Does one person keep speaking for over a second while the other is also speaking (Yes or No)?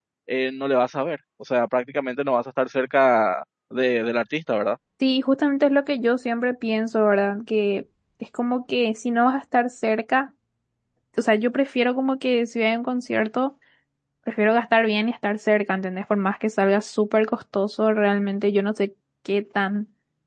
No